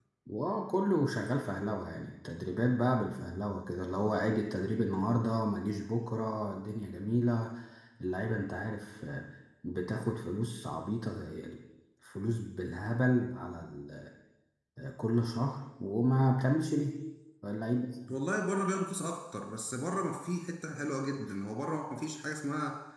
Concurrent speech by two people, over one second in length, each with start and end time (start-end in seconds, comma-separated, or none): none